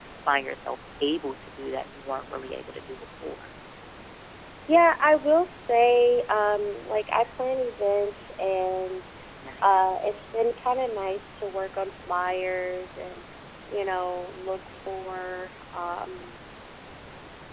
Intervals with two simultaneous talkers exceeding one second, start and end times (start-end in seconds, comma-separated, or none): none